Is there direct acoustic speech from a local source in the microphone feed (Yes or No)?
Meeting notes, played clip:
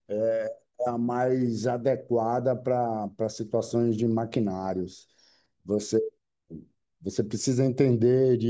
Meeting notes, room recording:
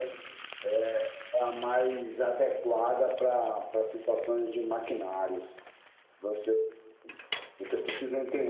No